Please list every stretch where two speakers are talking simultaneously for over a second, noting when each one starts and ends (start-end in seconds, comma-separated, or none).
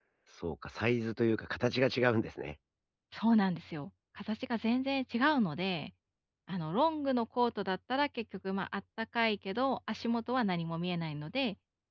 none